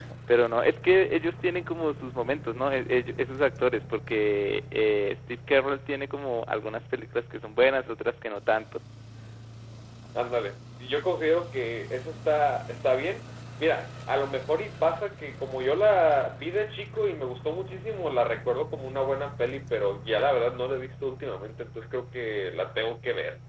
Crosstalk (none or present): none